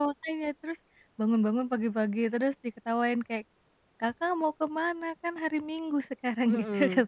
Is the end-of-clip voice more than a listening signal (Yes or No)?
Yes